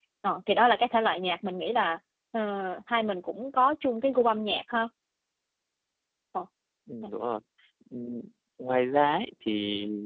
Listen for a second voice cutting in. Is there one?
No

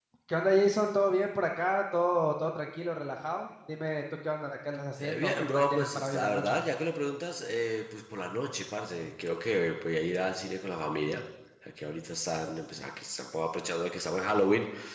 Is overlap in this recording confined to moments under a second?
No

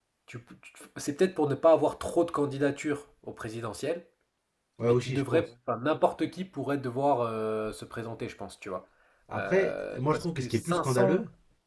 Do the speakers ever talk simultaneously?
Yes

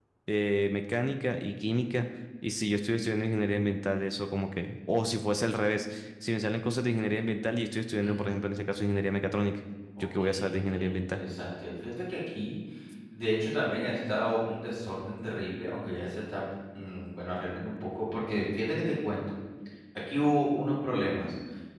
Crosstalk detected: Yes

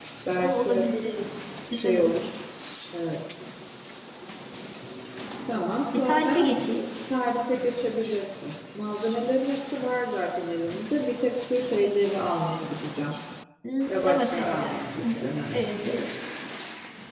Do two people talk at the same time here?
Yes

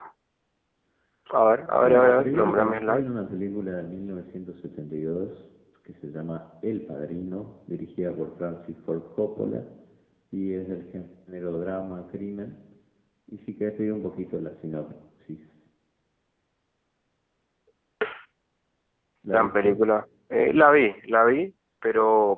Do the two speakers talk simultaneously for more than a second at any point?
Yes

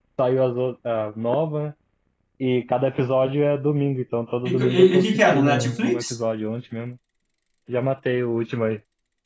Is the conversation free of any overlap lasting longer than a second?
No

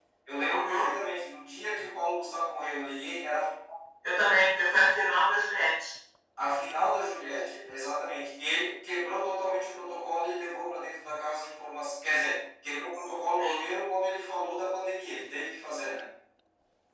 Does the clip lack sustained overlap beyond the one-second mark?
Yes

